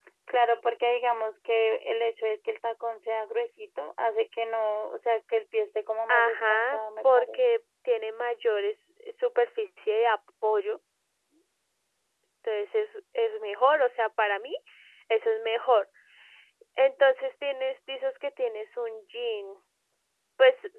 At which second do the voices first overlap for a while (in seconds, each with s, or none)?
6.1 s